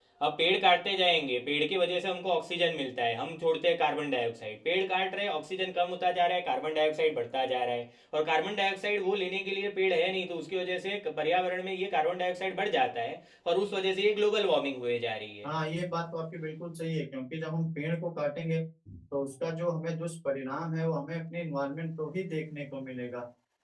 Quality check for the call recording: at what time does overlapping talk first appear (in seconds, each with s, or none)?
none